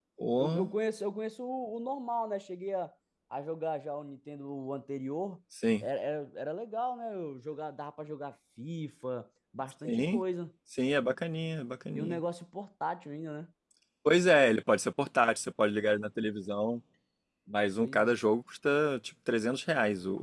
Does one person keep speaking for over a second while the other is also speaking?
No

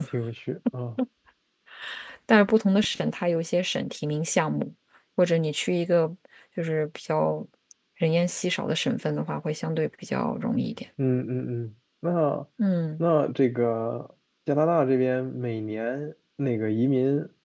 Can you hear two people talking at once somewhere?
No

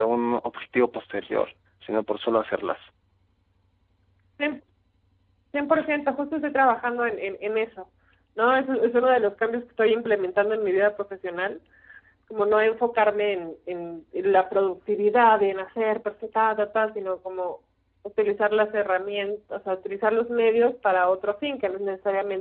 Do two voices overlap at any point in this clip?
No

